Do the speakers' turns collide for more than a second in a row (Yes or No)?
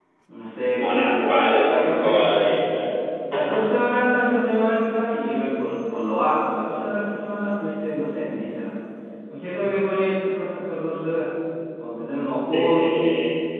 Yes